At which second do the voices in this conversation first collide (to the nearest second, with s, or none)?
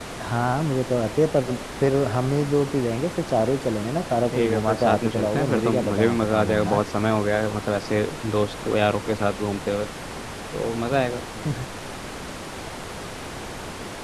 4 s